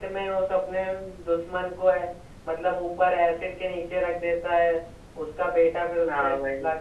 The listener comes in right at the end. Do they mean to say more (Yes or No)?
Yes